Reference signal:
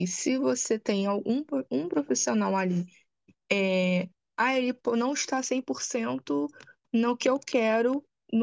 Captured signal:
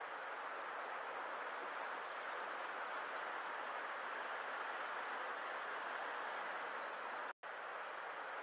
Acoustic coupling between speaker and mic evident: No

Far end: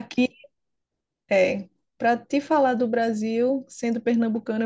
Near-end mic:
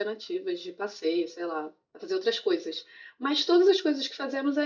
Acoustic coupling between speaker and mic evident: No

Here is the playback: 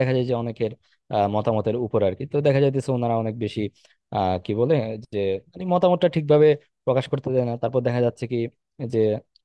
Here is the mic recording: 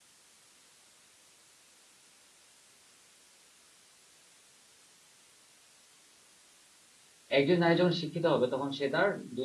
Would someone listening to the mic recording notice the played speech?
No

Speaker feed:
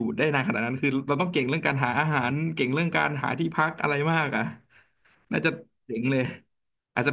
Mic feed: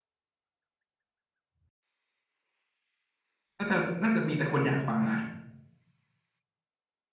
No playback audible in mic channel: Yes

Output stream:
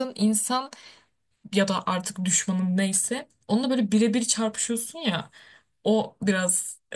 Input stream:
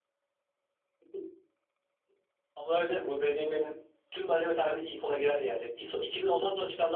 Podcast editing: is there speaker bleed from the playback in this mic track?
No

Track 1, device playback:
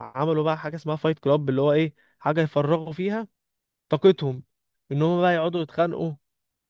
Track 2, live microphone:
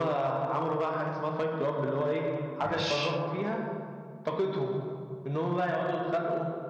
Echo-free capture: No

